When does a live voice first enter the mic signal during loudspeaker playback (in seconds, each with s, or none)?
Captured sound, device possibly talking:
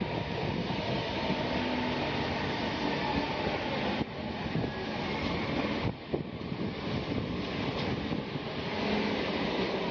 none